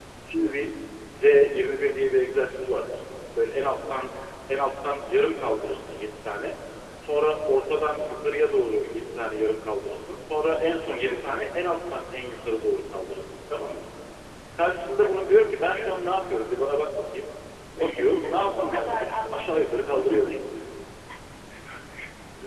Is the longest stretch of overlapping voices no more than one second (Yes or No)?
No